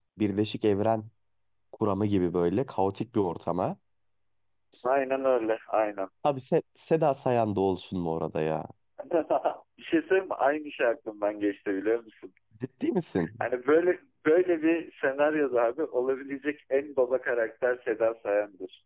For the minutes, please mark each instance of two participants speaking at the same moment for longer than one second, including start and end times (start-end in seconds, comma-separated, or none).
none